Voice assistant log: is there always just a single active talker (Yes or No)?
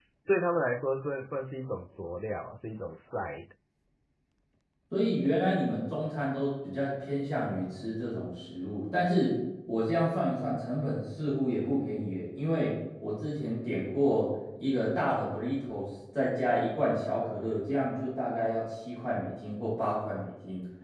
Yes